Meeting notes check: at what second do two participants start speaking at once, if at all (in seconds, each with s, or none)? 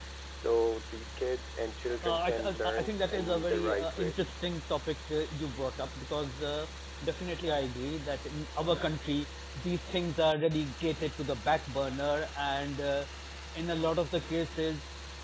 2.0 s